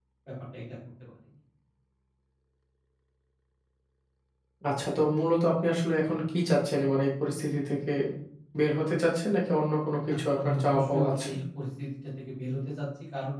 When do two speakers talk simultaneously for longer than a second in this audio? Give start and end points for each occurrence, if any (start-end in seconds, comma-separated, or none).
10.1-11.3